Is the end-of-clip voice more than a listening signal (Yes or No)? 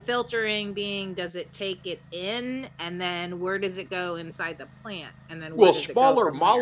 Yes